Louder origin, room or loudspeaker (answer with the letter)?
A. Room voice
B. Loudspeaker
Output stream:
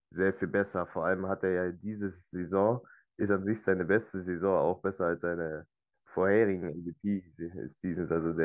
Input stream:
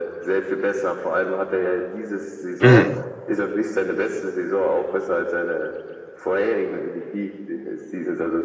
A